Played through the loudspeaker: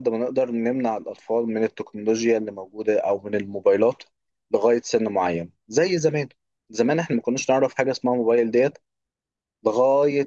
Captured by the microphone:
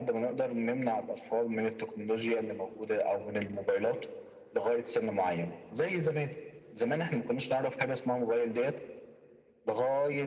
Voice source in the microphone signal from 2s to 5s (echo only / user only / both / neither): echo only